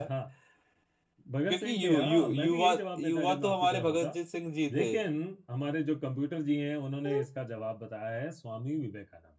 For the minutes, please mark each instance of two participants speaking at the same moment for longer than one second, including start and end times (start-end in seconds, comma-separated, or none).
1.5-4.1